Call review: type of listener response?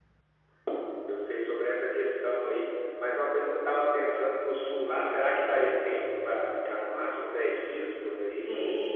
taking over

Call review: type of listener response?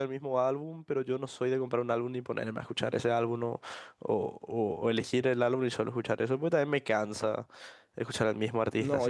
taking over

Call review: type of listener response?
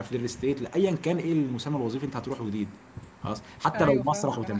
taking over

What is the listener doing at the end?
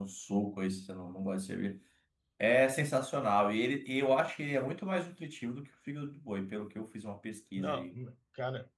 taking over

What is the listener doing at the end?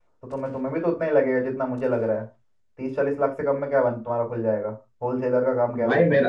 taking over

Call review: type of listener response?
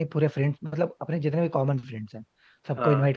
listening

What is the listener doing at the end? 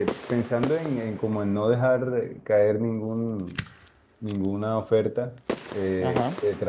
listening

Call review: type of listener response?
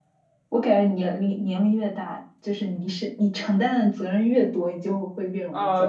taking over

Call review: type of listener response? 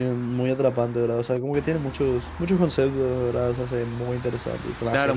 taking over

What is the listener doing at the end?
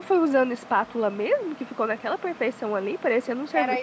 taking over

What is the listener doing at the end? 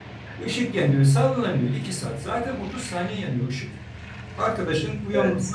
listening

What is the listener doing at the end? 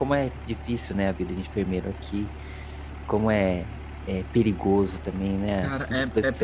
taking over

